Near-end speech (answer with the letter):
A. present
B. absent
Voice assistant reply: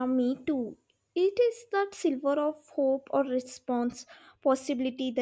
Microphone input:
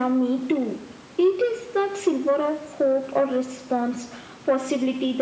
B